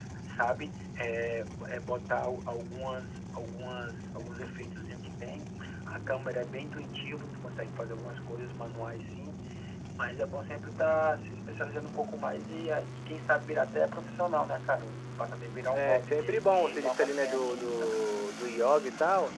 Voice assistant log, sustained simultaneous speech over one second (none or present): present